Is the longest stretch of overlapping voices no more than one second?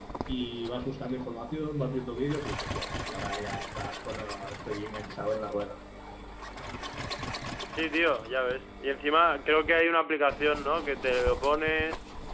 Yes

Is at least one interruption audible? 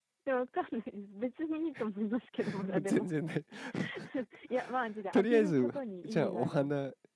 Yes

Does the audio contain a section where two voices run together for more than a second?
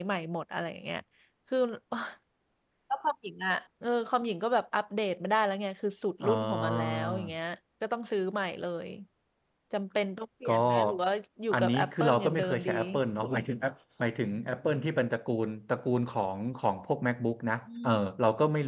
Yes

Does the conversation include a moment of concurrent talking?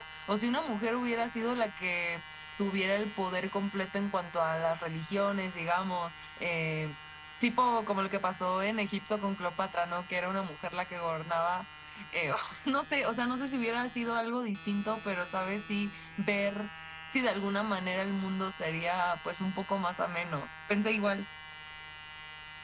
No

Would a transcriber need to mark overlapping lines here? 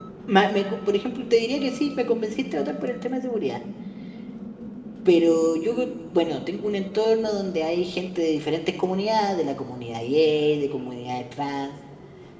No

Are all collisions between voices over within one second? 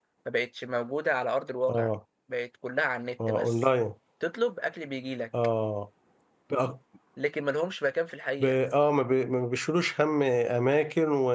Yes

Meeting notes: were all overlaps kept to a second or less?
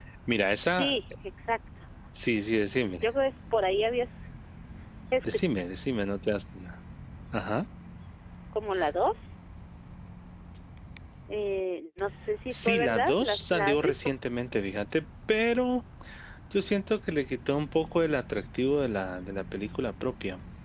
No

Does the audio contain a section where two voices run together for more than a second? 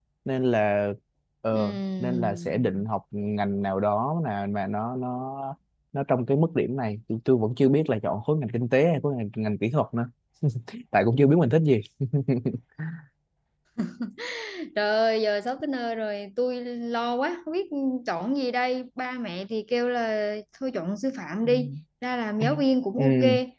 Yes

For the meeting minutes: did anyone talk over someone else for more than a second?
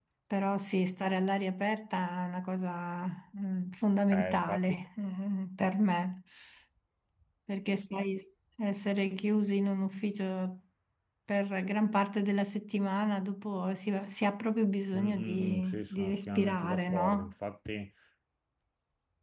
Yes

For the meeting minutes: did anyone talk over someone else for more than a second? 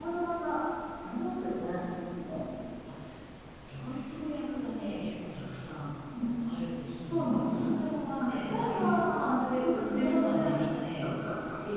Yes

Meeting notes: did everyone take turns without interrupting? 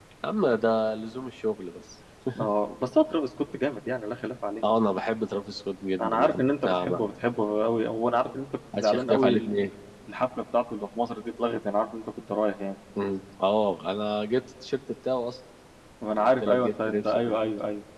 No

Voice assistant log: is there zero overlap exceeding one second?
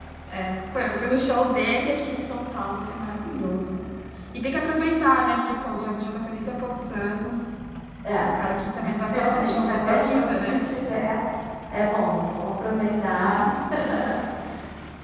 No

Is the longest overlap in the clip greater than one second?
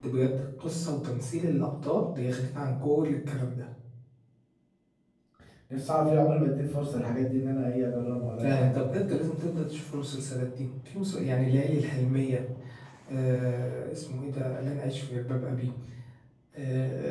No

